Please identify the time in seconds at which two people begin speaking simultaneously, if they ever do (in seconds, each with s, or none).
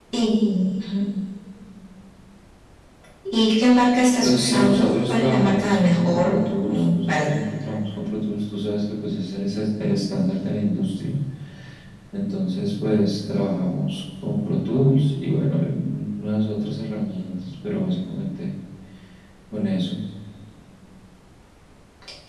4.2 s